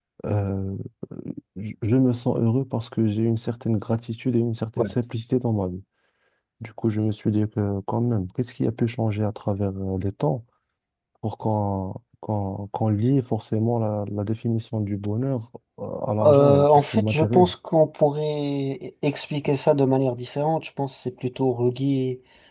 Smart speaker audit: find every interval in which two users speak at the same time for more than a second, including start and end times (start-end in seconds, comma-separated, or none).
16.2-17.5